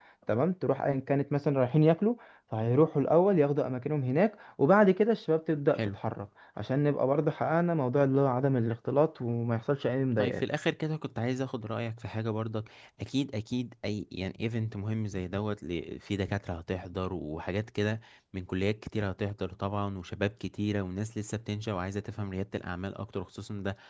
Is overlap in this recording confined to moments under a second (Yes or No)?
Yes